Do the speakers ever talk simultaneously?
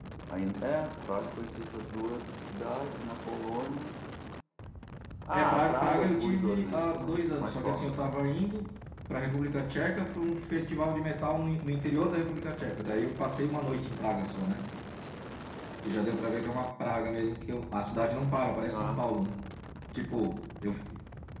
Yes, from 5.3 s

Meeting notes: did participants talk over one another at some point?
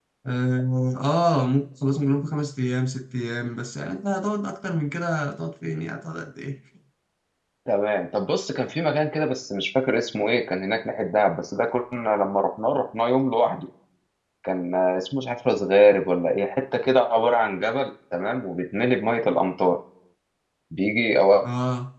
No

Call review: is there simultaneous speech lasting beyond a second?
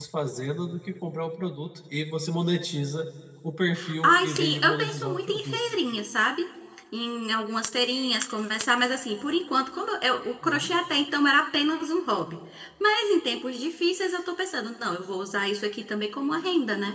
Yes, from 4.0 s

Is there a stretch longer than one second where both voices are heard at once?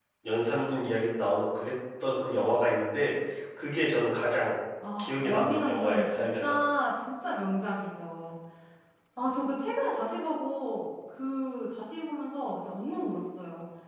Yes, from 5.0 s

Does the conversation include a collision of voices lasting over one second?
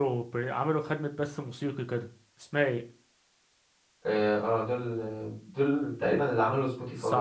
No

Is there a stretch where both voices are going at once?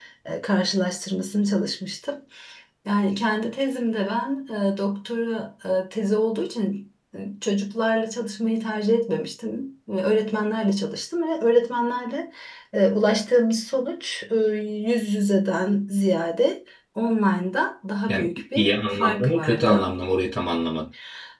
Yes, from 18.1 s

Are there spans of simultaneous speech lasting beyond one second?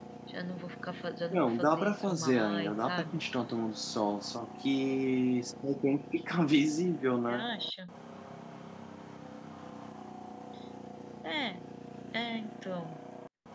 Yes, from 1.3 s

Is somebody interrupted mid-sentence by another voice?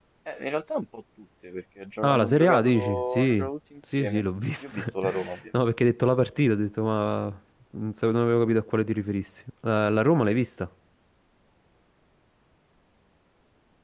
Yes, from 2.0 s

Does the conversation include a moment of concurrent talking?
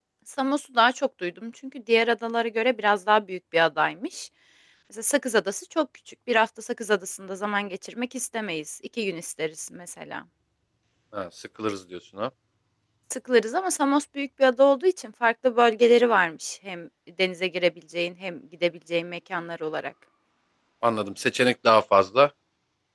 No

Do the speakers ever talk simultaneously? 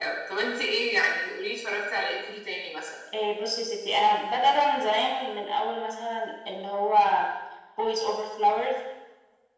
No

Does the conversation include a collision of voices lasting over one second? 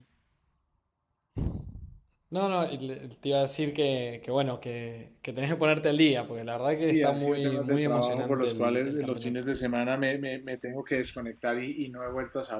Yes, from 6.9 s

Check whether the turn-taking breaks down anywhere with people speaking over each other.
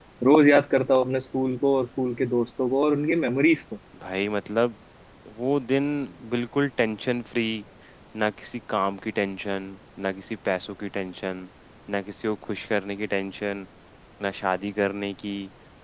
No

